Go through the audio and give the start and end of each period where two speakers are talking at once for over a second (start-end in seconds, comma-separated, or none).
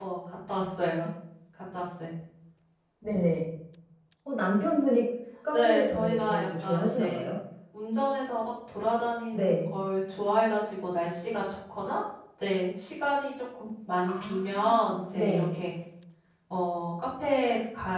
5.5-7.3, 14.1-15.4